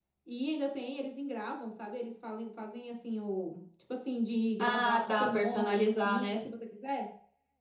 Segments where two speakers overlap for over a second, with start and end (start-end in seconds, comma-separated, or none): 4.6-6.4